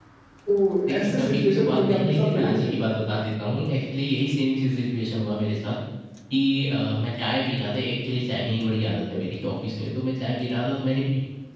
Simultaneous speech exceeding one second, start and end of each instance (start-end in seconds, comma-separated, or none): 0.9-2.6